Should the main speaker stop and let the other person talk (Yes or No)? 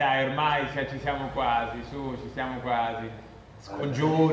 No